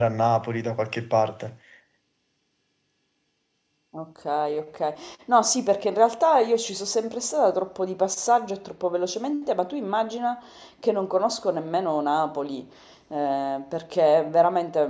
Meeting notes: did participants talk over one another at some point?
No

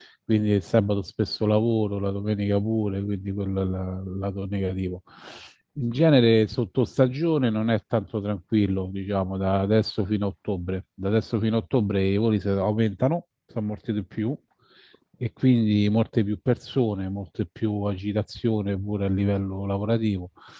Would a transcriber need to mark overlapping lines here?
No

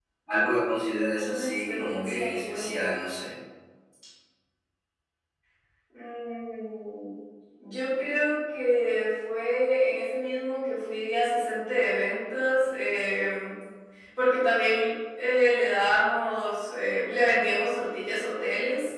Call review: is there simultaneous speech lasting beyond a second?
Yes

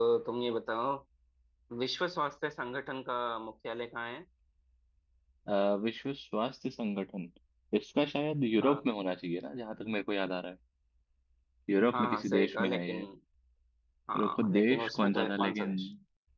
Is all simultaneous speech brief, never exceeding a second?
No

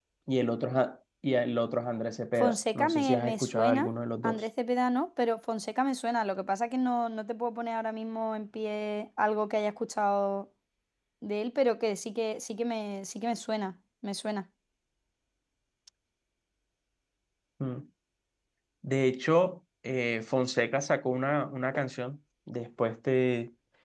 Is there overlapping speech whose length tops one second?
Yes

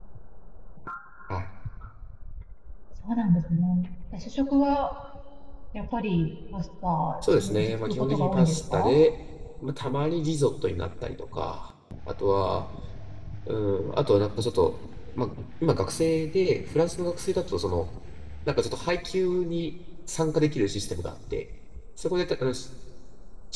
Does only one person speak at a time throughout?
No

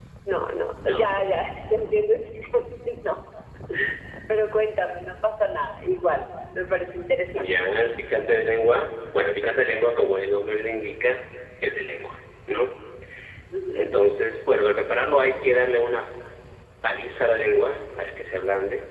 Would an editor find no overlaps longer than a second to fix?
Yes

